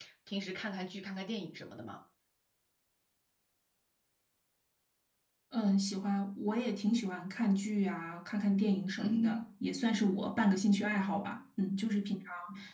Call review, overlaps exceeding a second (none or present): none